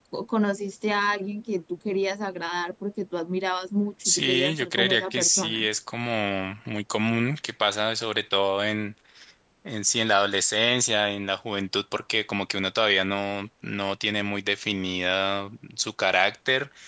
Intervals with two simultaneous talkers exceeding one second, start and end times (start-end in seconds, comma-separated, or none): 4.0-5.7